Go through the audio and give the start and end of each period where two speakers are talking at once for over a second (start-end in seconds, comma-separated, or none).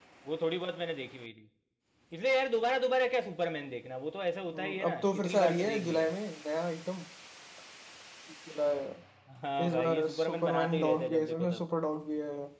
4.5-6.1, 9.7-11.6